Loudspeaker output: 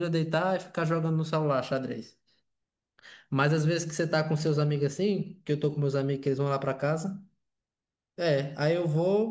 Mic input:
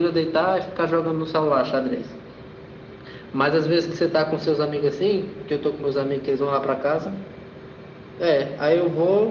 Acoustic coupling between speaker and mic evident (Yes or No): Yes